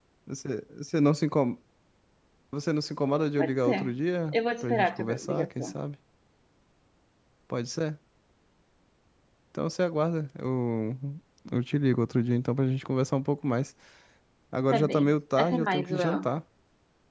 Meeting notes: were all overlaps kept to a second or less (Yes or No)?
No